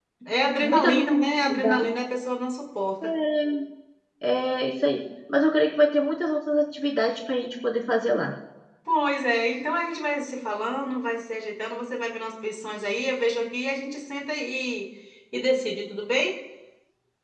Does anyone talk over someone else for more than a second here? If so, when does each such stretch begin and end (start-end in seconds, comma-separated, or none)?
0.6-1.9